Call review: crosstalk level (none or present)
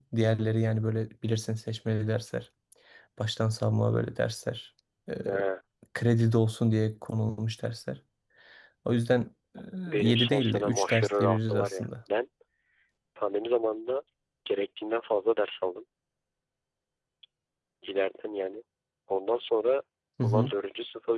present